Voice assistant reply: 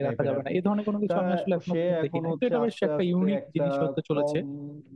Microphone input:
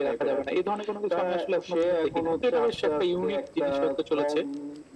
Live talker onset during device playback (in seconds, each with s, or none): none